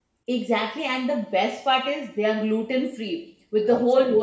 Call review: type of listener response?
listening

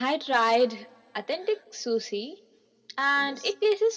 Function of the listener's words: listening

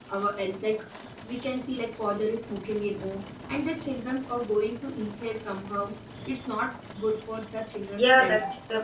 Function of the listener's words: taking over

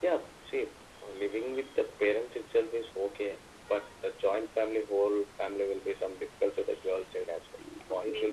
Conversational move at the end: taking over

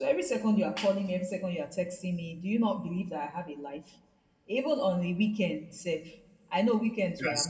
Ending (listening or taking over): listening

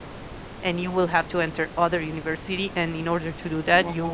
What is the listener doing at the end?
listening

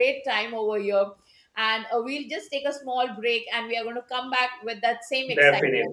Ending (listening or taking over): taking over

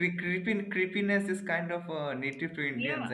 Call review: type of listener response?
taking over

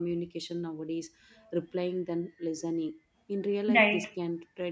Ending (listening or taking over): listening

